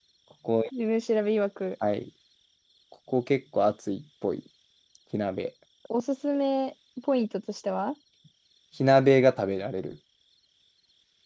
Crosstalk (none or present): none